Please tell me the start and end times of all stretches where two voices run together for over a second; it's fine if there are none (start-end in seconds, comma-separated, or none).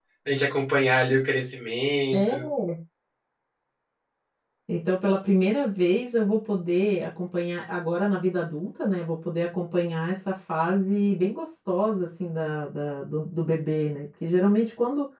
none